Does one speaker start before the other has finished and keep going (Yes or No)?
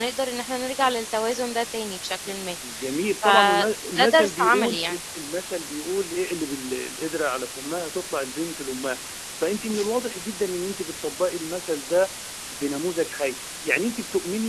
Yes